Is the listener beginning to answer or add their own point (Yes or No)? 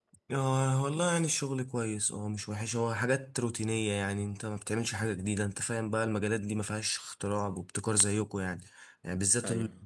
No